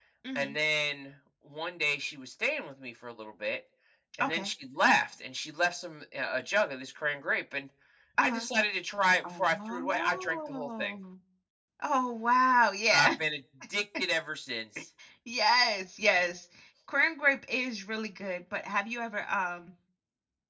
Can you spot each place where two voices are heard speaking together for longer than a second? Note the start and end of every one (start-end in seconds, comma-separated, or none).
9.2-10.9